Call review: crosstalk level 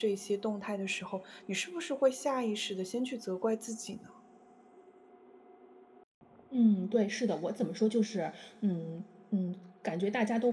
none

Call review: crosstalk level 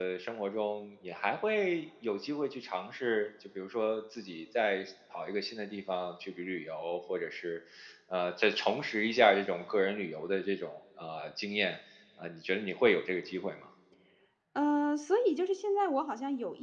none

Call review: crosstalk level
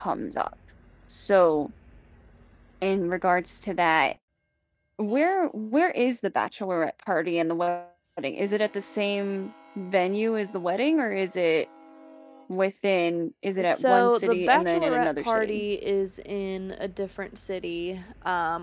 present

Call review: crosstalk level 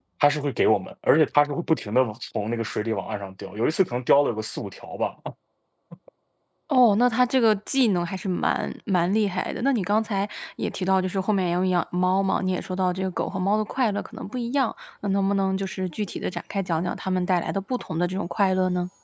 none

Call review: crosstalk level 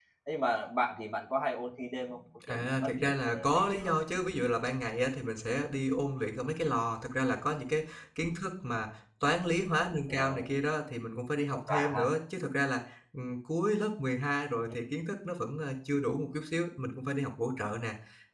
present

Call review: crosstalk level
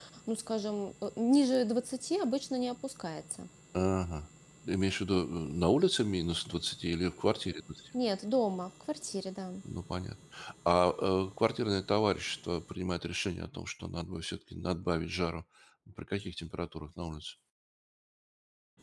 none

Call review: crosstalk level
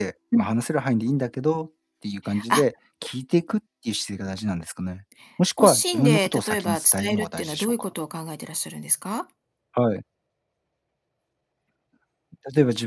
present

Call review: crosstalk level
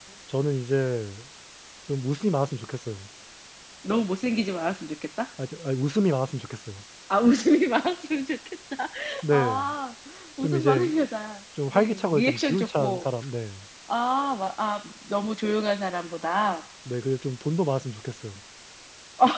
present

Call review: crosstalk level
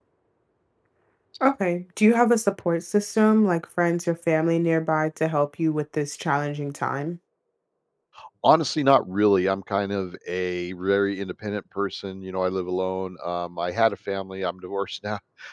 none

